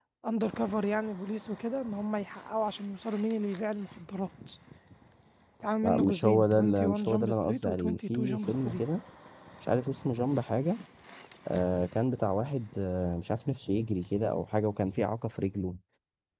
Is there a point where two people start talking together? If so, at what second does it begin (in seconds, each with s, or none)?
5.8 s